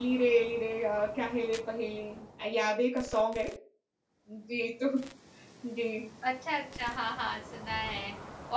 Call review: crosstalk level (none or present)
none